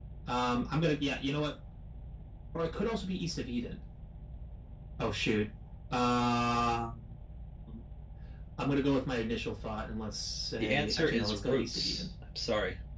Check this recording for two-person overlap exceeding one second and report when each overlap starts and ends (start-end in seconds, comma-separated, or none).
10.6-12.1